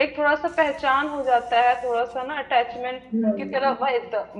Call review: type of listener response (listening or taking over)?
listening